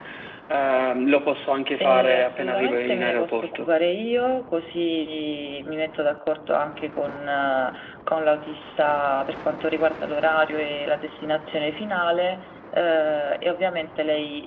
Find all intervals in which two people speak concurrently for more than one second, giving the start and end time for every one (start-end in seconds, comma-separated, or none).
1.8-3.7